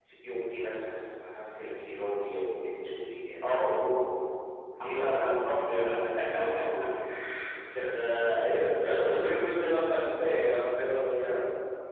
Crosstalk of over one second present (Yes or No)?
No